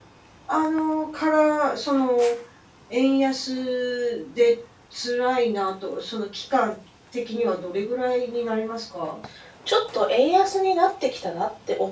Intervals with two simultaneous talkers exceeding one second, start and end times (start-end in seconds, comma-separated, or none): none